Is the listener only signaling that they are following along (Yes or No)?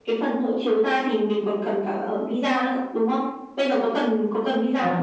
No